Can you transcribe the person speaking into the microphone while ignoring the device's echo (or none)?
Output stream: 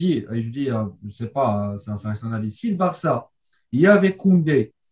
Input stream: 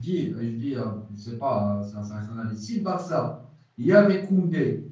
none